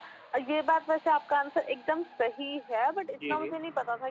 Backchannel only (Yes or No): Yes